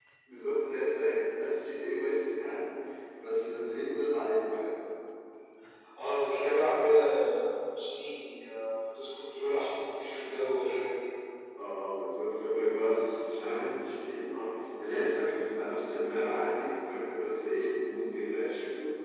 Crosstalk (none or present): none